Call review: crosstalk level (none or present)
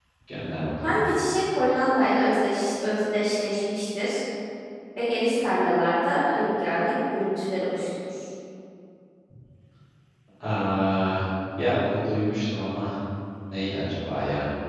none